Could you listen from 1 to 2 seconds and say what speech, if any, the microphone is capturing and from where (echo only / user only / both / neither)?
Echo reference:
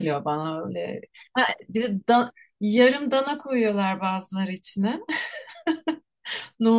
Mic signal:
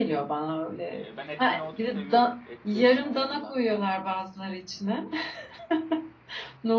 both